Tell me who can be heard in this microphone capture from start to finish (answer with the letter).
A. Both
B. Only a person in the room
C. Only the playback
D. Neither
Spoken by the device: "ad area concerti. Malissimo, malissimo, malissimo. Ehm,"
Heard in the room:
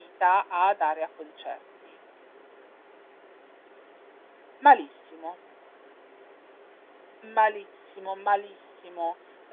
C